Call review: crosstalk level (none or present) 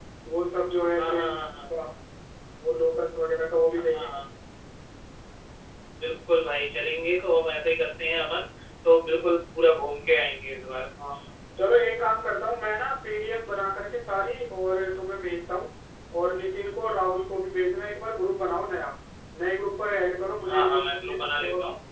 present